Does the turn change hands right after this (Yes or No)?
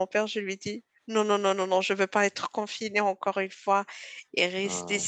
No